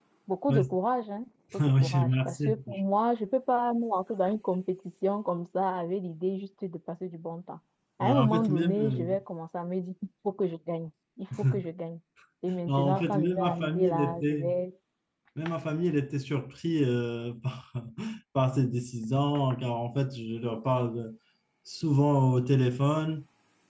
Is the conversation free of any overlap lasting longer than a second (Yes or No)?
No